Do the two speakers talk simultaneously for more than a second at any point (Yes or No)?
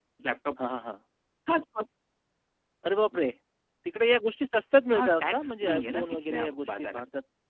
Yes